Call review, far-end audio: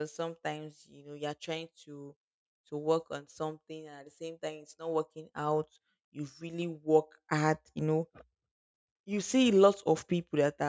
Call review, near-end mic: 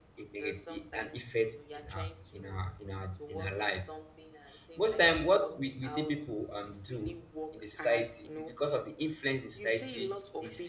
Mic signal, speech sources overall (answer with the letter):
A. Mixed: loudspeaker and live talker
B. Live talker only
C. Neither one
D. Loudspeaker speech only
A